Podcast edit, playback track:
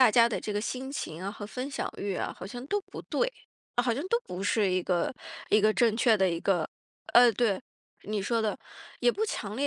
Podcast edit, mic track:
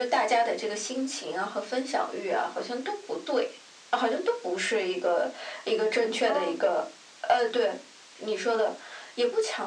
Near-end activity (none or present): present